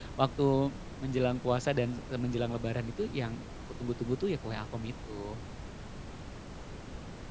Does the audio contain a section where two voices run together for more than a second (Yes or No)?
No